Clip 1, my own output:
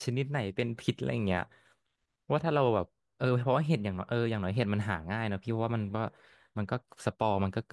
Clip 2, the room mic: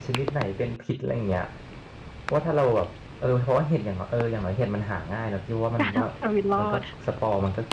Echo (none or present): present